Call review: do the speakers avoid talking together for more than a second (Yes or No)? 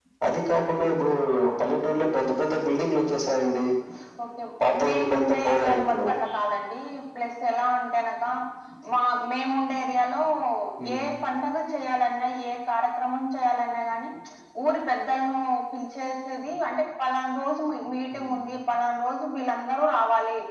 No